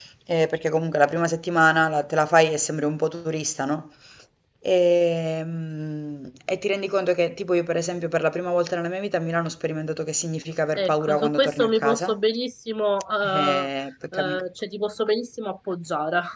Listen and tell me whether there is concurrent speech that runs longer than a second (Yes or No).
Yes